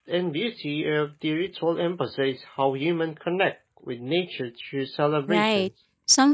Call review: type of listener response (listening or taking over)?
taking over